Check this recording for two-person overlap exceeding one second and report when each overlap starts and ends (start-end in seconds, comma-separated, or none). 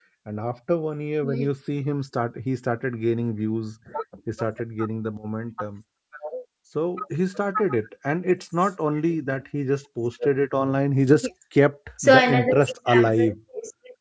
12.0-13.3